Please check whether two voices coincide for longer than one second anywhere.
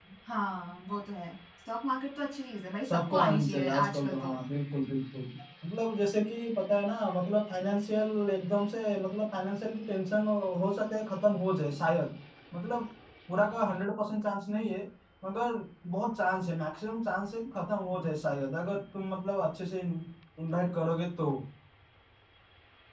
Yes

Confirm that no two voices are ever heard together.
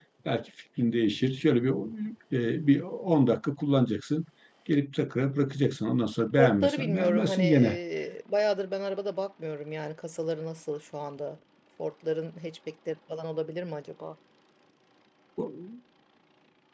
No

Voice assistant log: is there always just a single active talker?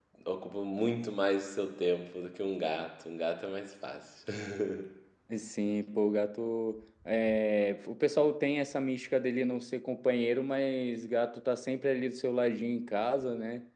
Yes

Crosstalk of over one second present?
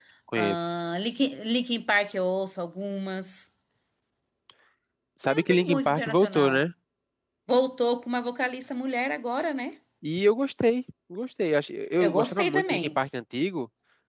Yes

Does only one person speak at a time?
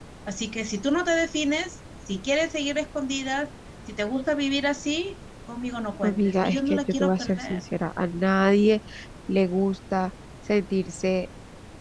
No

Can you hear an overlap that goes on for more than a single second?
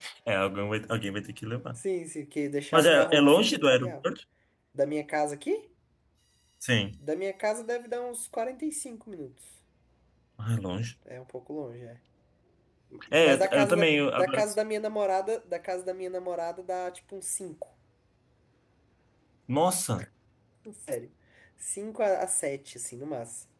Yes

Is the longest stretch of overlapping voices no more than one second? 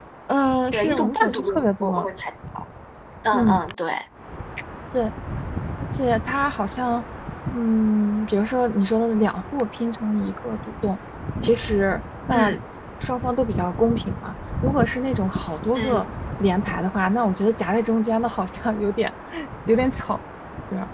No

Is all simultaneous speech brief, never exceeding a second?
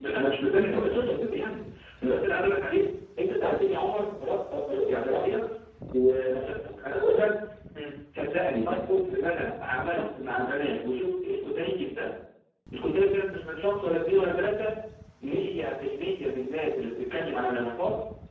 Yes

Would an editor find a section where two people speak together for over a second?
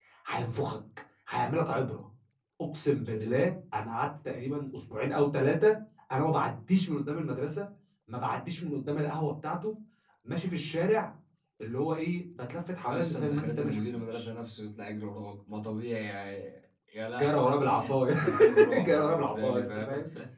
Yes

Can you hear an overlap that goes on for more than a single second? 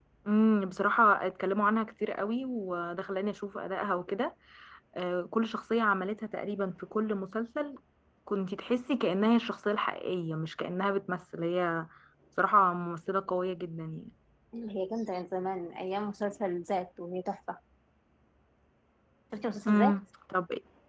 No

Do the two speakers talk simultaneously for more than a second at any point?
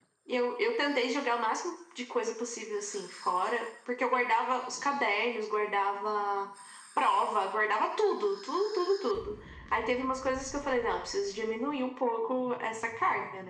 No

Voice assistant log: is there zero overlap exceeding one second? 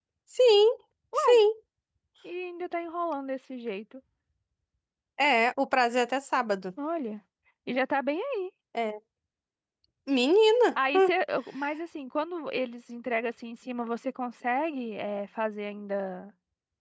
Yes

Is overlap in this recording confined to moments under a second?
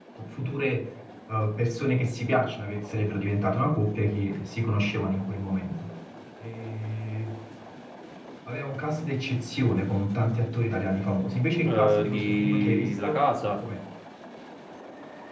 No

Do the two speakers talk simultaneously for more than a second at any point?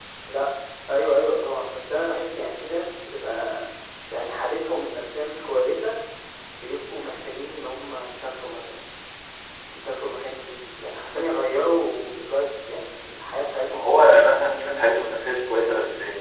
No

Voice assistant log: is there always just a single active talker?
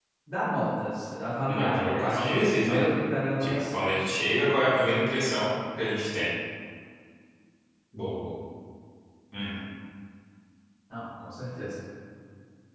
No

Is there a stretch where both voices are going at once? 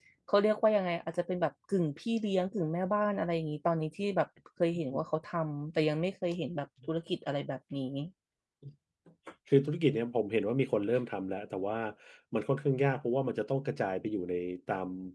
No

